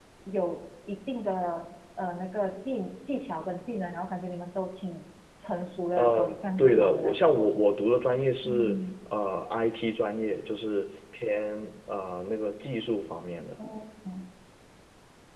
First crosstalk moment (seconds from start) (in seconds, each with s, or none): 5.9 s